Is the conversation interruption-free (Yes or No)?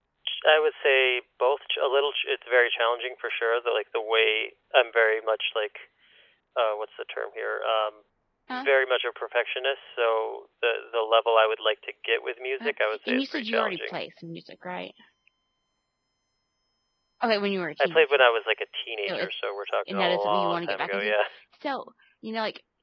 No